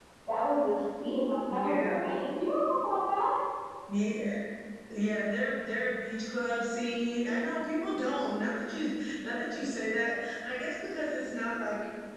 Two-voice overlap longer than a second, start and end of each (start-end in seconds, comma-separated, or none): none